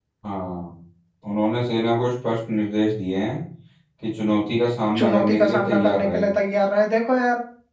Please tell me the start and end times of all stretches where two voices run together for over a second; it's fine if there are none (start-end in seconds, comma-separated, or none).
5.0-6.3